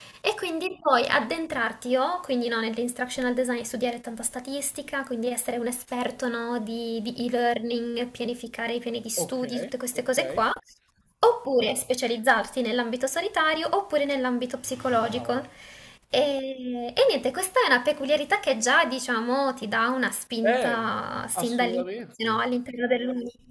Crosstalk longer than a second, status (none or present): none